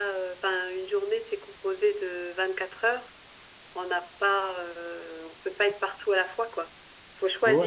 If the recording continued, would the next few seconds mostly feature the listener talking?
Yes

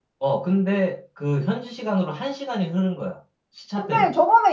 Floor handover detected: Yes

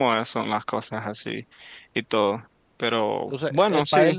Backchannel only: No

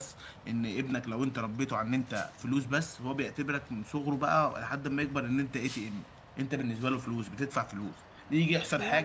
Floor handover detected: No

